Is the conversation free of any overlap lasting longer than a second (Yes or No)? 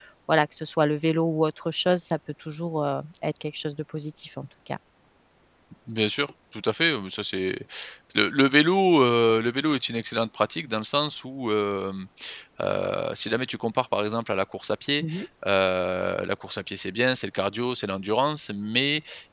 Yes